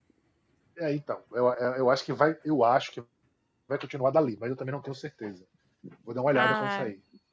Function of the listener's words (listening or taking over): taking over